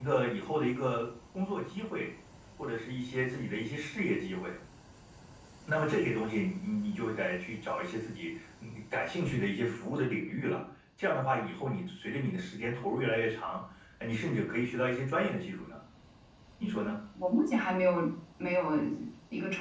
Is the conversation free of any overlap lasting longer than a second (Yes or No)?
Yes